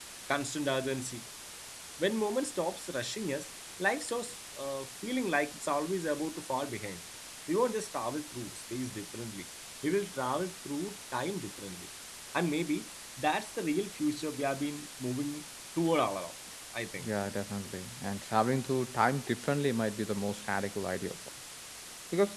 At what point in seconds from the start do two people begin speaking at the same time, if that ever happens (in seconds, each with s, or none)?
none